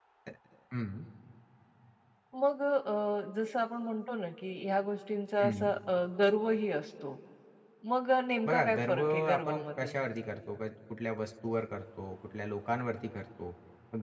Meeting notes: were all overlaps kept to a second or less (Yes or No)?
No